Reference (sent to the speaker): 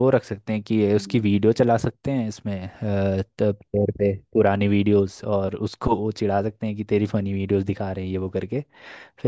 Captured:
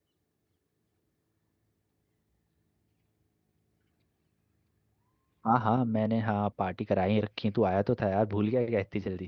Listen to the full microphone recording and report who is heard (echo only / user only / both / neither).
user only